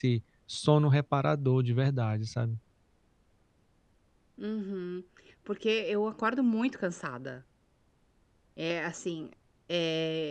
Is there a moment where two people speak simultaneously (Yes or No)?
No